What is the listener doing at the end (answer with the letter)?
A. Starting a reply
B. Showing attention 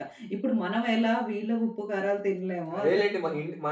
A